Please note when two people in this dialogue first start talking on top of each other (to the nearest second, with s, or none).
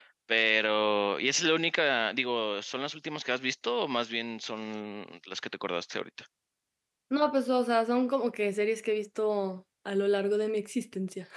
none